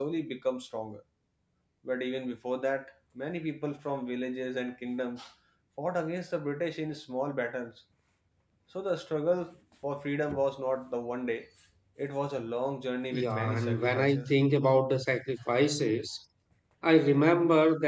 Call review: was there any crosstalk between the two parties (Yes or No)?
Yes